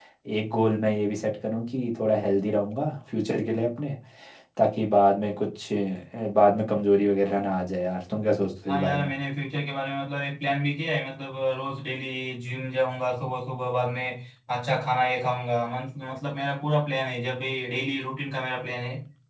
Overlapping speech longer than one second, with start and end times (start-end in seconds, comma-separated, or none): none